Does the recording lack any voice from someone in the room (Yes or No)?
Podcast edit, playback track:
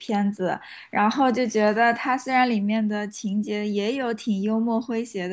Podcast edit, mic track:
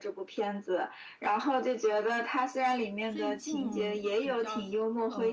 No